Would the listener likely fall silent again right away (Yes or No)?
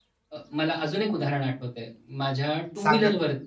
Yes